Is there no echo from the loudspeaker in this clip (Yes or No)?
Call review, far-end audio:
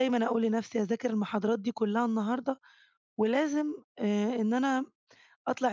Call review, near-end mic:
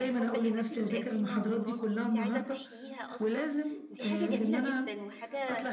No